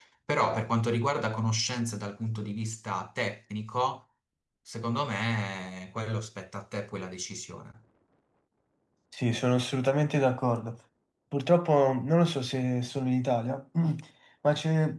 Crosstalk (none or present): none